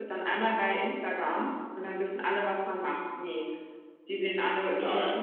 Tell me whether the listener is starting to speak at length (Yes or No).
No